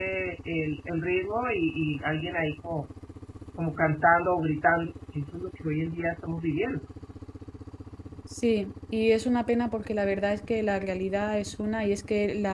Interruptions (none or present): none